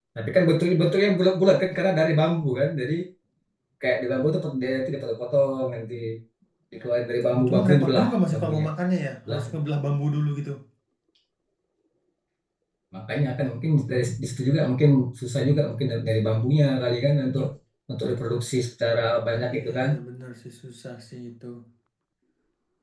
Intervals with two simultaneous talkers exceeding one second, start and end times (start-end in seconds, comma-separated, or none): 7.3-8.6